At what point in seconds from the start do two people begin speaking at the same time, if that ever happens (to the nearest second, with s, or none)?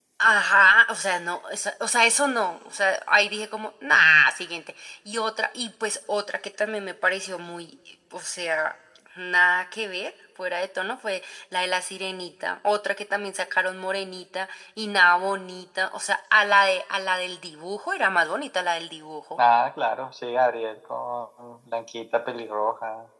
none